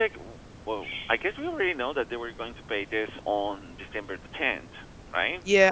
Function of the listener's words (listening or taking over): taking over